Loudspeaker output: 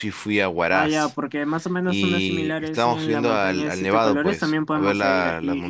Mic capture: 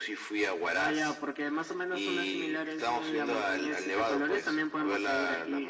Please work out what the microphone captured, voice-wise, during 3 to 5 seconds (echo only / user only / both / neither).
echo only